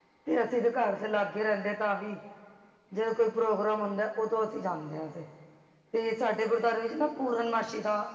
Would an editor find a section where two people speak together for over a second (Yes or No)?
No